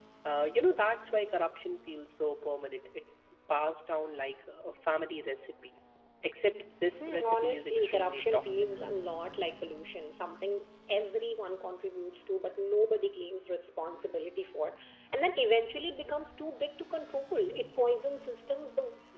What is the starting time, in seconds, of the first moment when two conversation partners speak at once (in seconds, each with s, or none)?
7.0 s